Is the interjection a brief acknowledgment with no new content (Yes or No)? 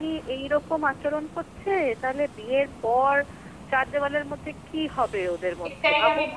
No